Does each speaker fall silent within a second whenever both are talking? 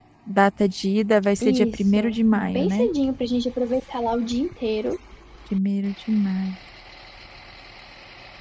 No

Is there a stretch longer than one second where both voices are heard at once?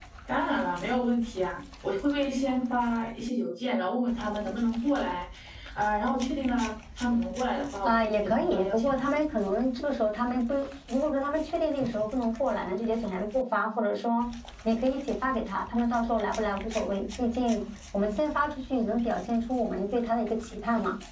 Yes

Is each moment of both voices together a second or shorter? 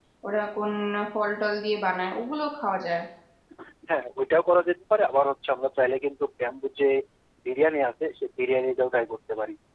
Yes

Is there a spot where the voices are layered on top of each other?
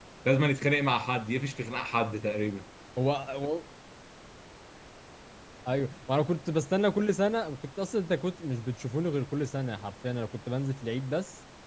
No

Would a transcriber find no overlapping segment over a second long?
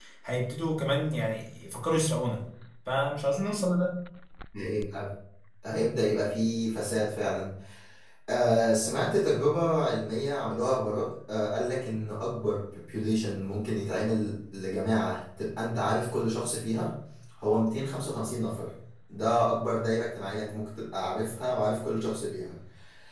Yes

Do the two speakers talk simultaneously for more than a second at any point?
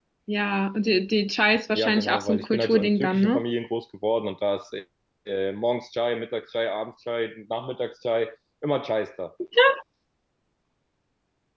Yes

